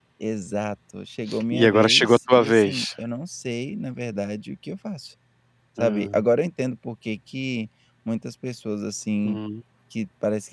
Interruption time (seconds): 1.5 s

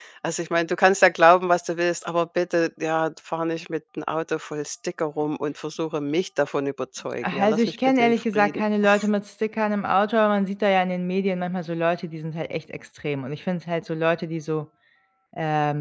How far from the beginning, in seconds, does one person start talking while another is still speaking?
7.2 s

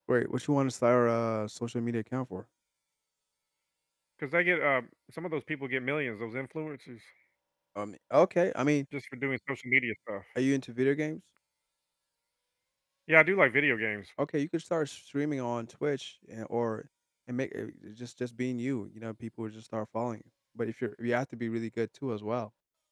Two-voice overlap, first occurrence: none

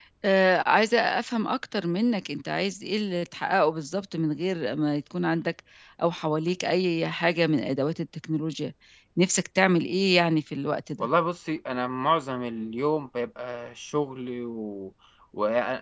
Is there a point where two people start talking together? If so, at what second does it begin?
none

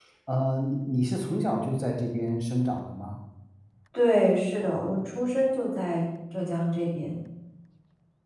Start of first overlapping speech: none

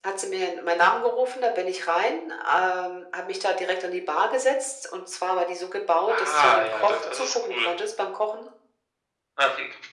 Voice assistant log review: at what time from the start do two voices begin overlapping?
6.1 s

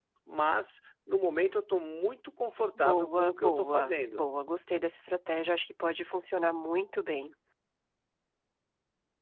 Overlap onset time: 2.8 s

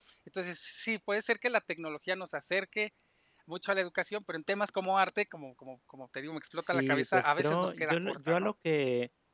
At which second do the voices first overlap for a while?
6.6 s

